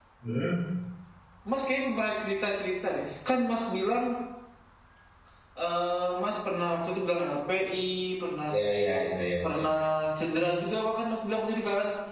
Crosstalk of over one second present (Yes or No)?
No